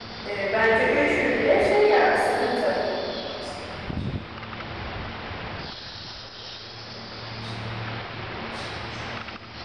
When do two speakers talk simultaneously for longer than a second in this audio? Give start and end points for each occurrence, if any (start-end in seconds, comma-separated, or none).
none